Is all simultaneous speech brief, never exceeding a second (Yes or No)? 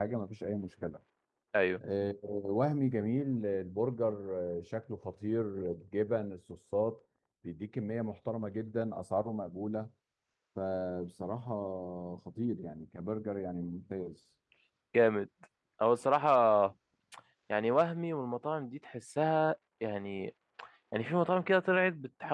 Yes